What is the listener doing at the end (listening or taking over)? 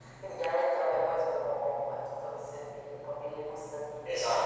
taking over